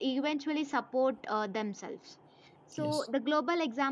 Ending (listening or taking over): listening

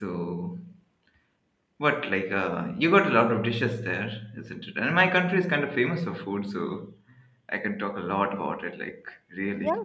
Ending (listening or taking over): taking over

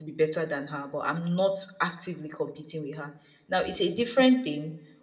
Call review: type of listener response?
listening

